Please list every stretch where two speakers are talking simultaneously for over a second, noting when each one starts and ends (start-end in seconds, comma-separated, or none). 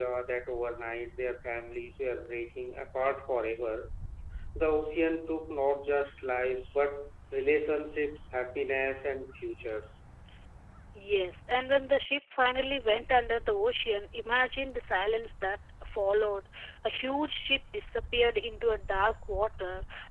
none